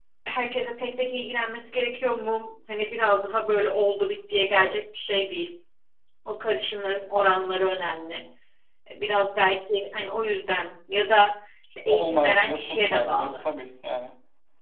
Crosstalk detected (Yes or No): Yes